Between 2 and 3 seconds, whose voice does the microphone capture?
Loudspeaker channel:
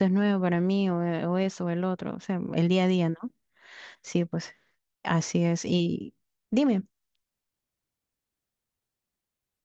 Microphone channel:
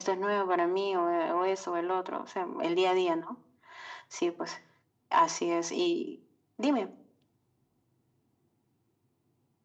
echo only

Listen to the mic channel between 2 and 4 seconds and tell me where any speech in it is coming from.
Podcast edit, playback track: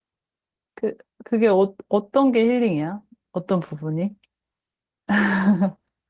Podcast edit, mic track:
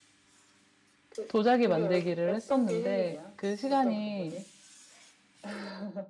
both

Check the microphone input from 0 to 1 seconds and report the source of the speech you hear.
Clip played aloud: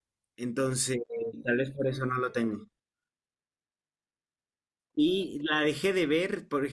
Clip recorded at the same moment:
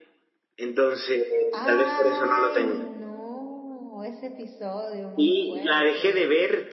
echo only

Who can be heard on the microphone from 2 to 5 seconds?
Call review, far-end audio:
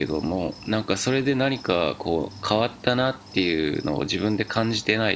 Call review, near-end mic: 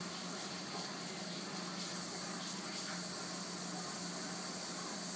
neither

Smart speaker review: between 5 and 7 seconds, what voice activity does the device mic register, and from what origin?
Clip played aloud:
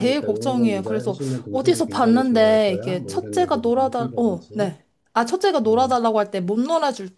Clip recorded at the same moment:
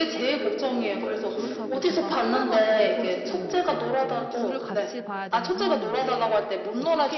both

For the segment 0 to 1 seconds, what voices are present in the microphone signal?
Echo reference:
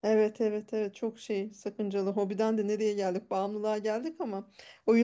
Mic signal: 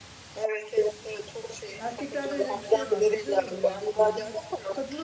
echo only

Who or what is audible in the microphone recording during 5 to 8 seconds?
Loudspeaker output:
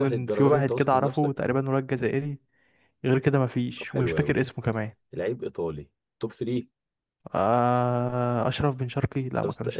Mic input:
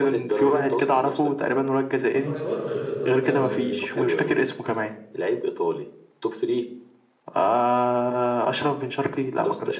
echo only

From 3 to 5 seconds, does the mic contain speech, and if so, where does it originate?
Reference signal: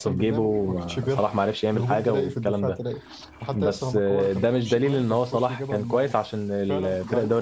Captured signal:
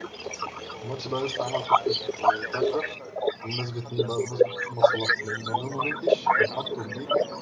both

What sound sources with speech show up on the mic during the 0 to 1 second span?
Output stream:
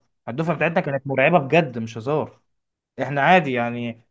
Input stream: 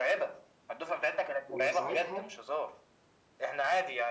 echo only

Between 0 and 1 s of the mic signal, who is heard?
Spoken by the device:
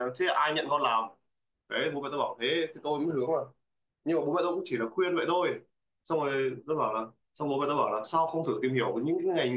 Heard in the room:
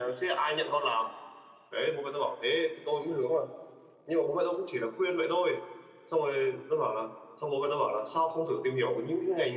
echo only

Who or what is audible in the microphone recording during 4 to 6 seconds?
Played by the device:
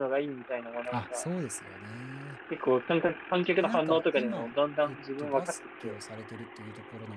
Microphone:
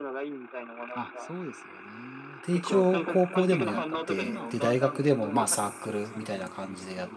both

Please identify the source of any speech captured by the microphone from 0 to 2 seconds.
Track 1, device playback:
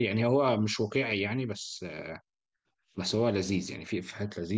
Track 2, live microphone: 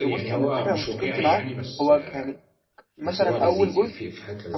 both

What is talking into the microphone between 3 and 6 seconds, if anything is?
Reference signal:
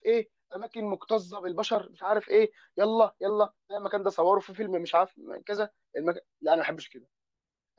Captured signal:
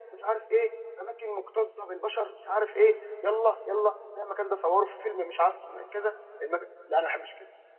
echo only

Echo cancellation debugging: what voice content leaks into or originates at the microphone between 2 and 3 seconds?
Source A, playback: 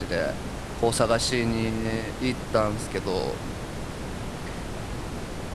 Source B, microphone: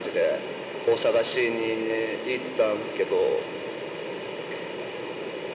echo only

